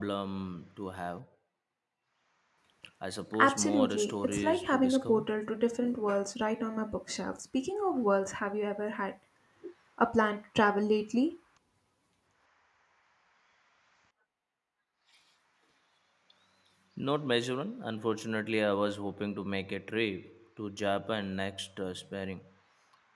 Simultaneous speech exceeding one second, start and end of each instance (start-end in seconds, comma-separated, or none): 3.4-5.3